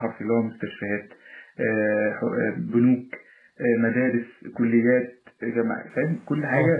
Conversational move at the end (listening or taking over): listening